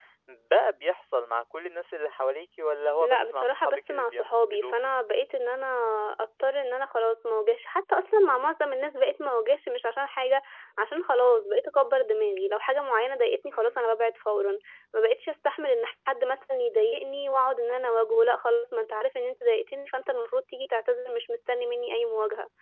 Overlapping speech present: Yes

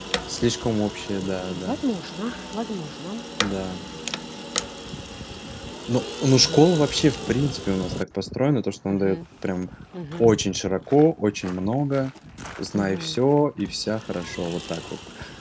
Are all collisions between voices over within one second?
Yes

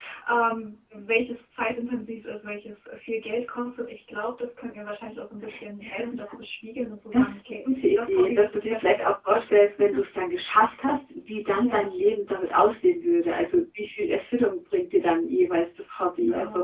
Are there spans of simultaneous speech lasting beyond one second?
Yes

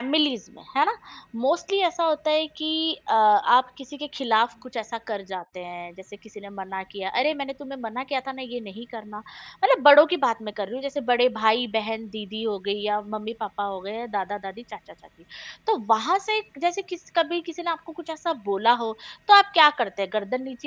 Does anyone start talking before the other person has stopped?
No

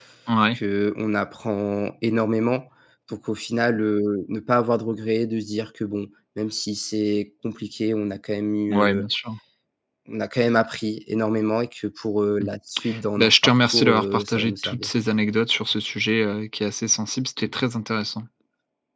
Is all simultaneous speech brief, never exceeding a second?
No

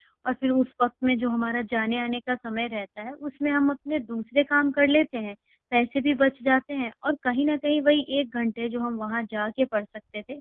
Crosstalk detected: No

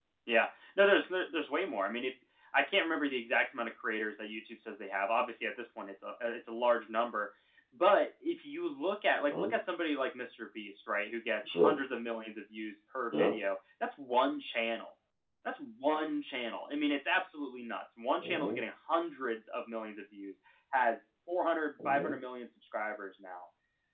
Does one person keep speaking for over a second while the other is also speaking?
No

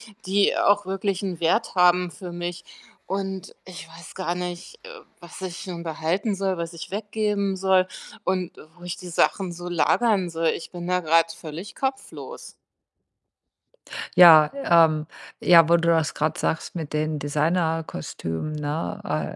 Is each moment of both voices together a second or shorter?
Yes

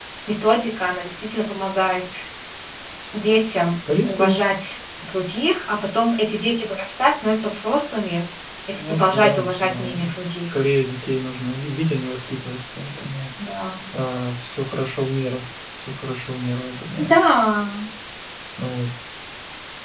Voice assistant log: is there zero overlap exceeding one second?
No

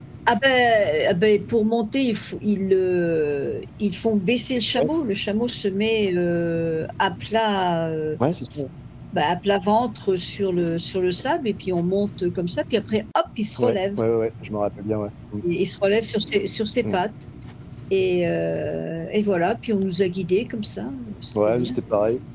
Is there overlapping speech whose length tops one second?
No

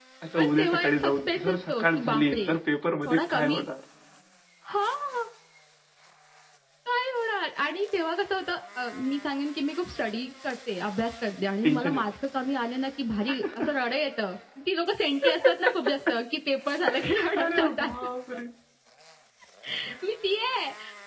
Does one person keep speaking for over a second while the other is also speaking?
Yes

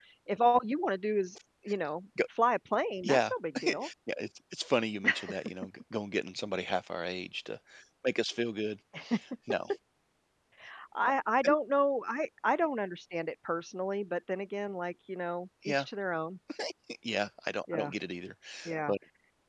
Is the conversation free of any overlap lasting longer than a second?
Yes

